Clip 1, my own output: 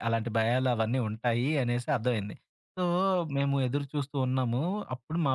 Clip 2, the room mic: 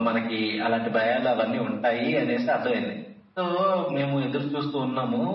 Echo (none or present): present